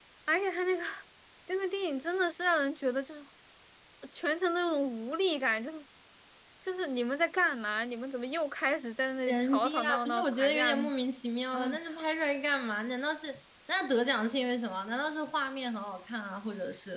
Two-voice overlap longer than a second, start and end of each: 9.3-10.9

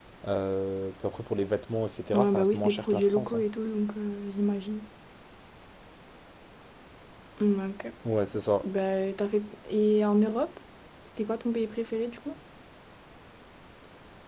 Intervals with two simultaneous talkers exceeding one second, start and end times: 2.1-3.4

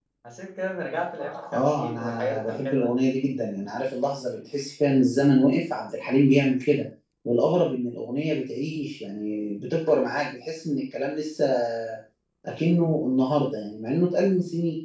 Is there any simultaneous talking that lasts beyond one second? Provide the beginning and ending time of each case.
1.5-3.0

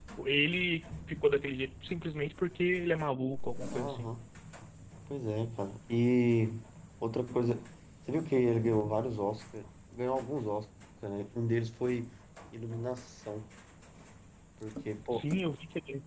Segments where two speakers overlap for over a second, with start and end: none

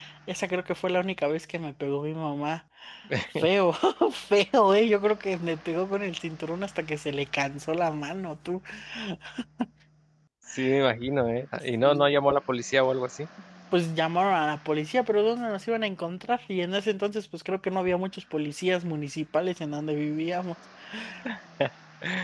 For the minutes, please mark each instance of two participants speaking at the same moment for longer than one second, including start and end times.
none

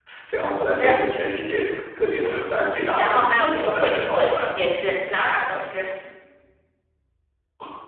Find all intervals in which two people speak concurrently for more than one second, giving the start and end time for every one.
3.0-4.3

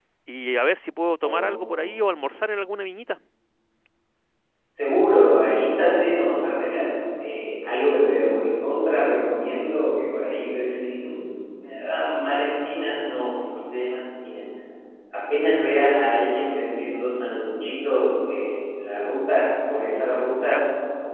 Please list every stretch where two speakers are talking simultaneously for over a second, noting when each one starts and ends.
none

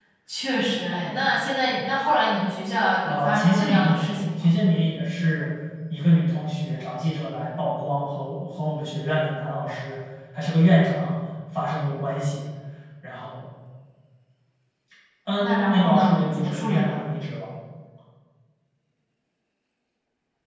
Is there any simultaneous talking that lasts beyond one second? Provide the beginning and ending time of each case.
3.1-4.5, 15.4-17.0

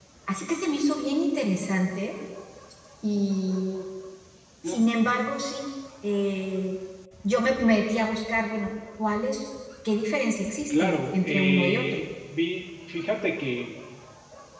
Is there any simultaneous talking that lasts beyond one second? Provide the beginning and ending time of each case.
10.8-12.0

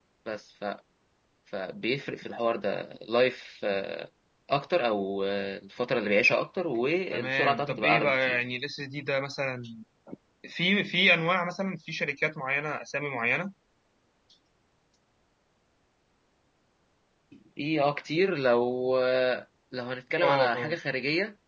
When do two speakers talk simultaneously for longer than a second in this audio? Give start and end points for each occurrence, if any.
7.1-8.4

